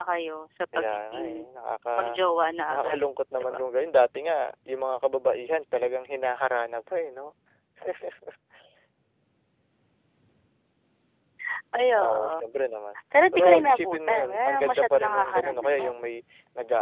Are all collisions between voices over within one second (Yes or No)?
No